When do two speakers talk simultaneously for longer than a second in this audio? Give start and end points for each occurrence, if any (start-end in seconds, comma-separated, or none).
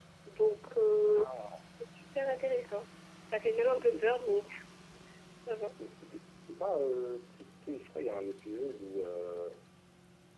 none